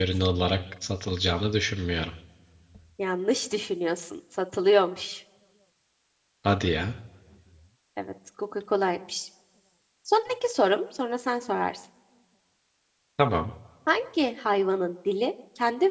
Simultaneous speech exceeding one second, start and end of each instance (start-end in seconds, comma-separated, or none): none